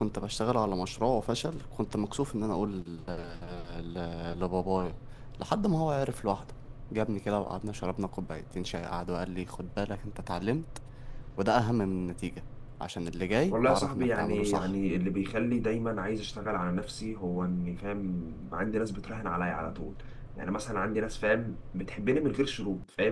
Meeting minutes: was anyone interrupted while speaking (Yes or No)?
Yes